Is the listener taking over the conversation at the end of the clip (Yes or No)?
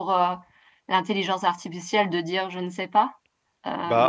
Yes